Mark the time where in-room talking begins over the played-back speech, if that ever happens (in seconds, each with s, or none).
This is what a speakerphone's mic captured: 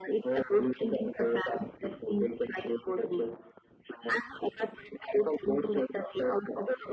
none